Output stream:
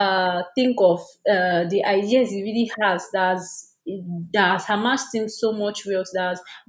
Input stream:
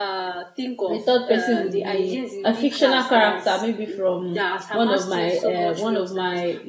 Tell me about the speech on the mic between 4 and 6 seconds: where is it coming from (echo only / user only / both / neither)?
both